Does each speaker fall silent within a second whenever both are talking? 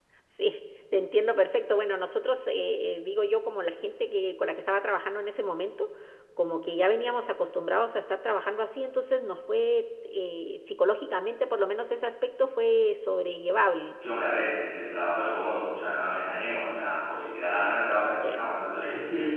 Yes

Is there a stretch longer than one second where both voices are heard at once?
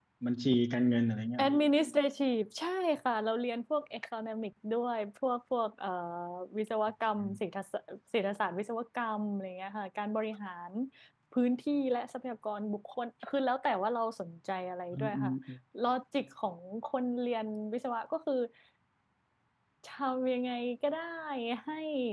No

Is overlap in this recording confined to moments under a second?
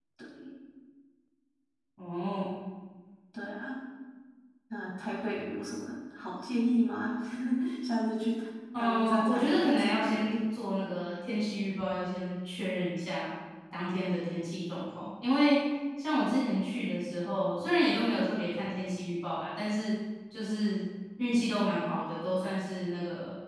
No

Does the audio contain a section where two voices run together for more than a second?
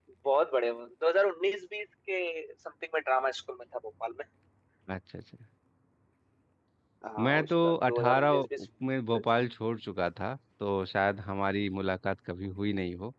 Yes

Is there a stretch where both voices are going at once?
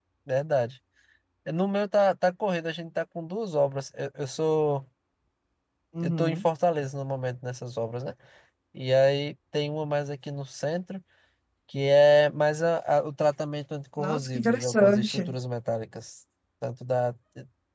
Yes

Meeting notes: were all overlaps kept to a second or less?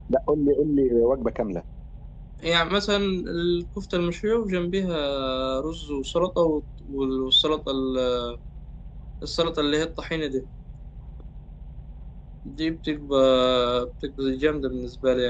Yes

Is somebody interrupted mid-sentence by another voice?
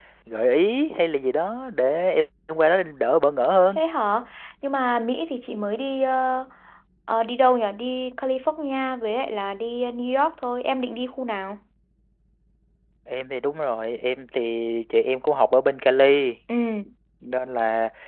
No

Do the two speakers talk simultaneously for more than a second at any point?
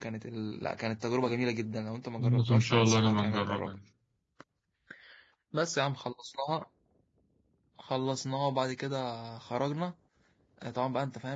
Yes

